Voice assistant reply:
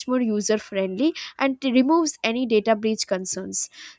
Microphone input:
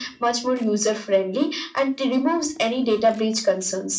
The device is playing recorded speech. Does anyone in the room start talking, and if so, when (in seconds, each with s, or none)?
none